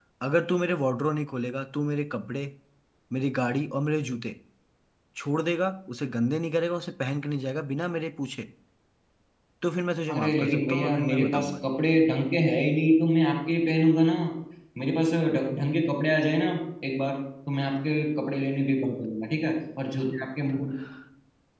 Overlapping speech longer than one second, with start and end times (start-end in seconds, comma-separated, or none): 10.1-11.7